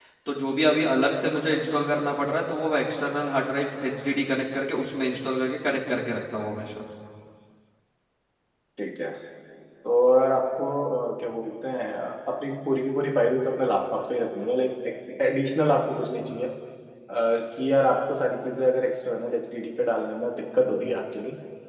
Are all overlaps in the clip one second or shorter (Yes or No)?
Yes